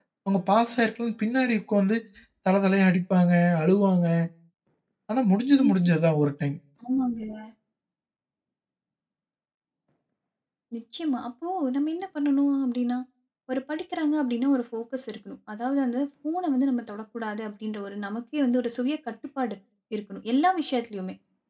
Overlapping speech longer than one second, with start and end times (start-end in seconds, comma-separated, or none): none